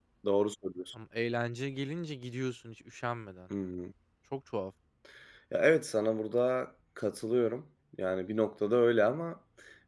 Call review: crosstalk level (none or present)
none